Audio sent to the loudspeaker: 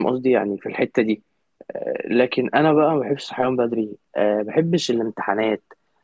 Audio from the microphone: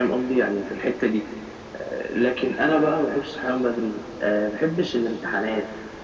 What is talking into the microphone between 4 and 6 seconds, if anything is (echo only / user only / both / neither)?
echo only